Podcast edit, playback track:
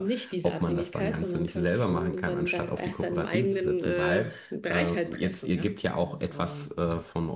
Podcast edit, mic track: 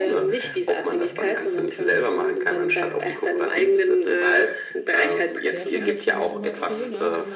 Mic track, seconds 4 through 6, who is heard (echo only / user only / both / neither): both